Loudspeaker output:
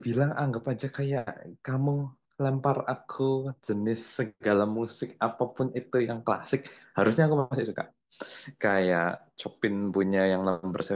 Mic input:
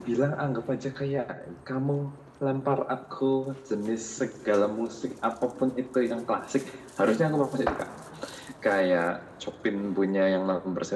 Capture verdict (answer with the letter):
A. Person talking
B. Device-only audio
B